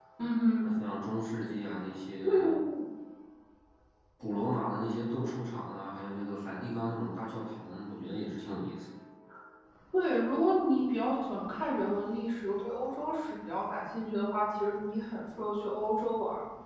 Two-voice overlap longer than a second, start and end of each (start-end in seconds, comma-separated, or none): none